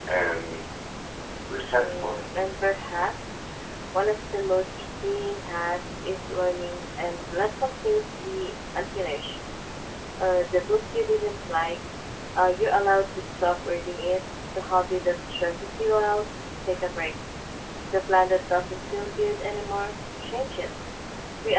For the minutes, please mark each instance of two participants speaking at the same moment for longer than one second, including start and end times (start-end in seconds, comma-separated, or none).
none